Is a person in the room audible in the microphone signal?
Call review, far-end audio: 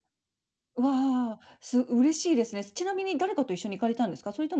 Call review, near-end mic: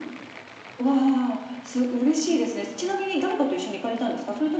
No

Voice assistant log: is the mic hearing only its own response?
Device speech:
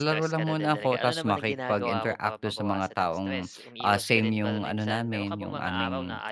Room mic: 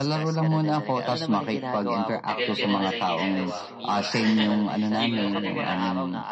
No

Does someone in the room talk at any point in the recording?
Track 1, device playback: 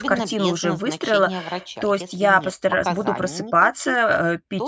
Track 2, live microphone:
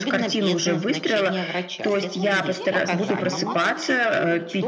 Yes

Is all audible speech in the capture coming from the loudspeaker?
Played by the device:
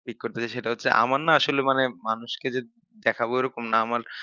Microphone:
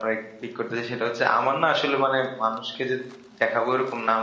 Yes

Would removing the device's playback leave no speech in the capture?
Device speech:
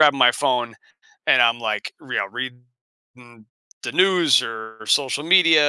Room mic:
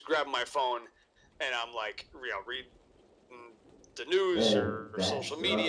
No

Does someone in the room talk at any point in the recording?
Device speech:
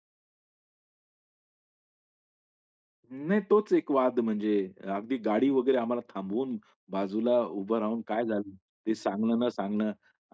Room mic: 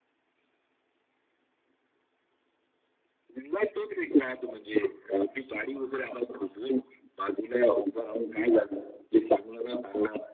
No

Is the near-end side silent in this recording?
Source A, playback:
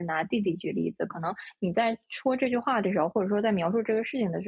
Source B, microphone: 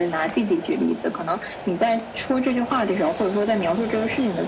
Yes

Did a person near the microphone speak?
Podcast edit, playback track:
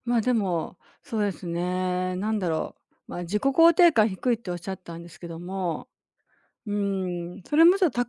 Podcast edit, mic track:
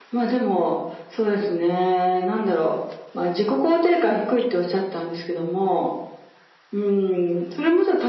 No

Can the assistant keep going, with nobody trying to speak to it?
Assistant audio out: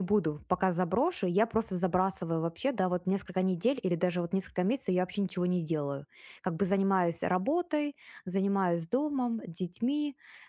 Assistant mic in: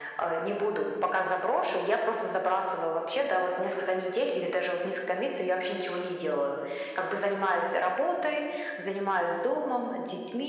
Yes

